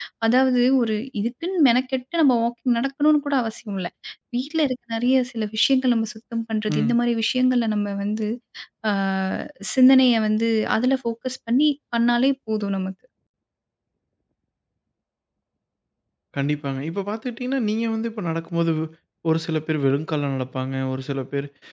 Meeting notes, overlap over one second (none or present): none